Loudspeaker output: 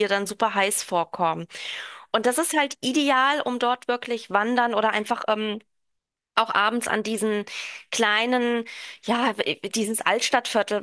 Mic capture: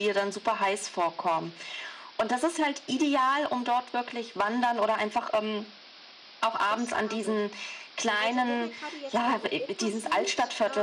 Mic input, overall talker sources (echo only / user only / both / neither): both